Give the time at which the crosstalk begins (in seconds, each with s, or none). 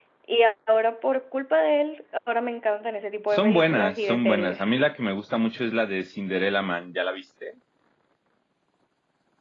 3.3 s